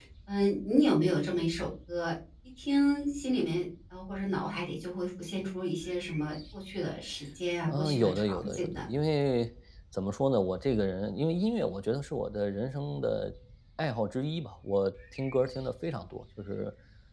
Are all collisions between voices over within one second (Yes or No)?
No